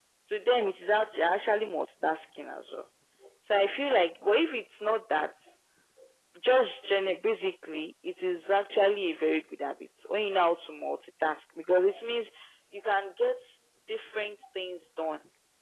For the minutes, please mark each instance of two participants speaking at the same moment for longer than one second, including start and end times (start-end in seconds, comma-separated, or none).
none